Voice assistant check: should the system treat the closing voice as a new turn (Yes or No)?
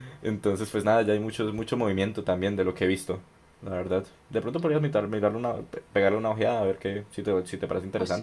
Yes